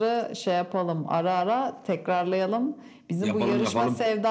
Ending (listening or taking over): listening